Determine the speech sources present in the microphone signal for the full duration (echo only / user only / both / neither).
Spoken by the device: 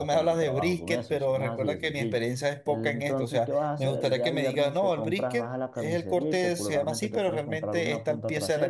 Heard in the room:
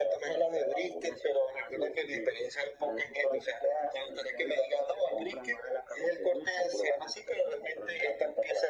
echo only